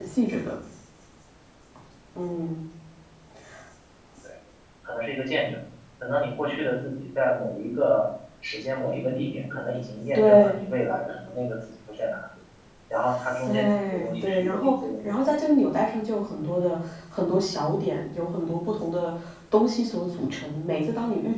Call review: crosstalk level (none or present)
present